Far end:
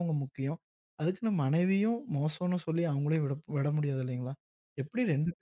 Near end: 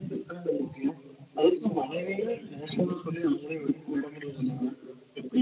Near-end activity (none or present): none